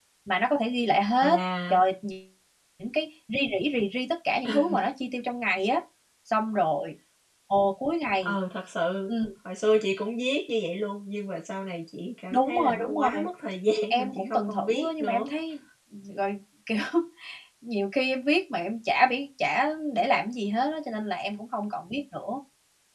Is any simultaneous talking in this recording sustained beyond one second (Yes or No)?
Yes